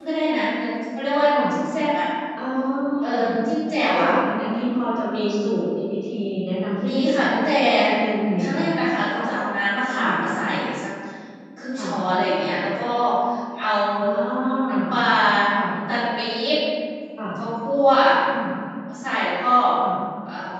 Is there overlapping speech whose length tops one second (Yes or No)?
No